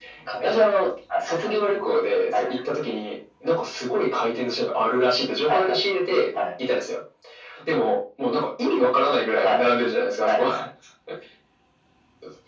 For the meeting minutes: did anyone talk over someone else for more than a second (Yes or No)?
No